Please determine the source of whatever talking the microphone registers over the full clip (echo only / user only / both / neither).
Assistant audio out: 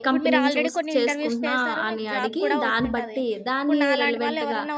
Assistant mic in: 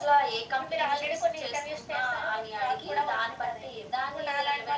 echo only